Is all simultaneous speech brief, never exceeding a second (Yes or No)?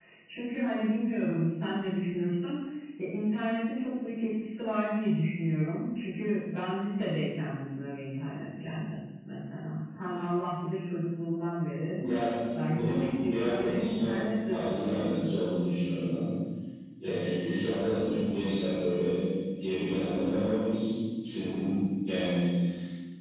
No